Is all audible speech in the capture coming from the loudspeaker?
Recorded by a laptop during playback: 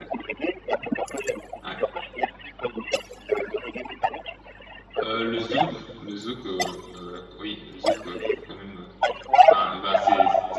No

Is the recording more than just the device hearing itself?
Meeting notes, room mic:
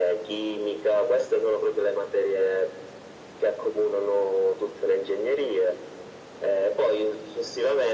No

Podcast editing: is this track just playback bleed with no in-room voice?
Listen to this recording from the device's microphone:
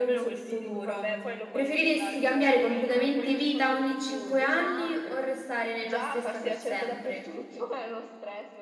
No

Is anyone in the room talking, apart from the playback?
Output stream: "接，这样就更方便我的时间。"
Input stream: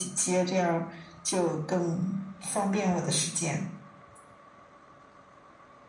No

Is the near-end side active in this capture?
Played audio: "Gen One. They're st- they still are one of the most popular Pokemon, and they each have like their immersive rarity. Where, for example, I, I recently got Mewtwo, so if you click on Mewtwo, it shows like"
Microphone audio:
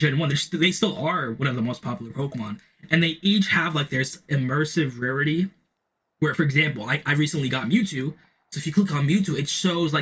No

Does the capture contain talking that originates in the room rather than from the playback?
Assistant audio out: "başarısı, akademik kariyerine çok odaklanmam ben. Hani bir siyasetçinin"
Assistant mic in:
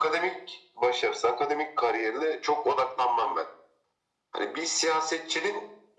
No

